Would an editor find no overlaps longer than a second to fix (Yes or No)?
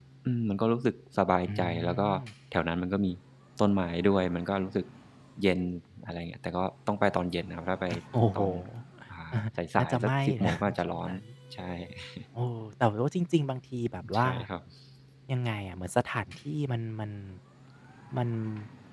No